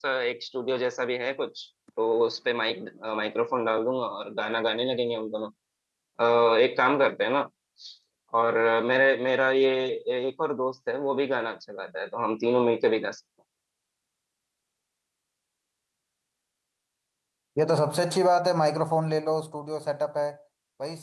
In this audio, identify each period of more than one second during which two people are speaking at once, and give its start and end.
none

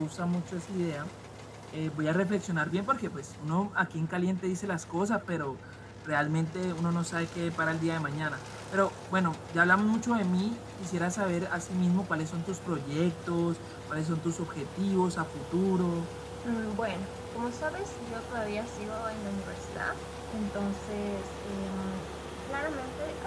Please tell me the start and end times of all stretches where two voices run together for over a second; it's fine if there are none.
none

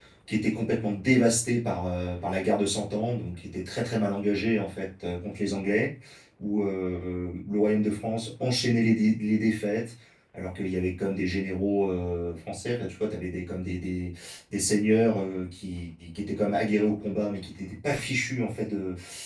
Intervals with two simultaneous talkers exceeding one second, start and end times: none

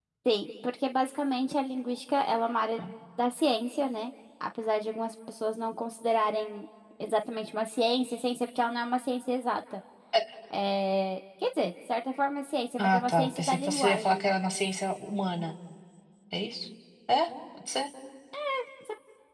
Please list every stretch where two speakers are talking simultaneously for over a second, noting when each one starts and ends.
12.8-14.2

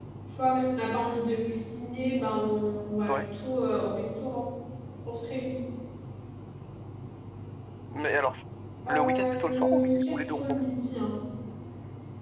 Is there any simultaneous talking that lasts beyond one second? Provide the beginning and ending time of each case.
8.9-10.6

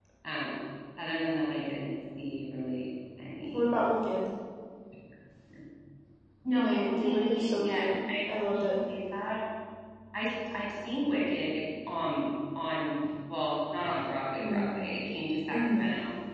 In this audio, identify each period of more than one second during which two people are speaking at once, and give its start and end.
6.5-8.8

